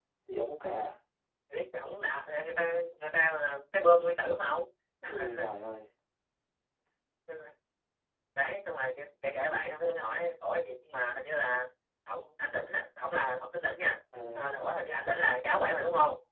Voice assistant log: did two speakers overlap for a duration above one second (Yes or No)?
No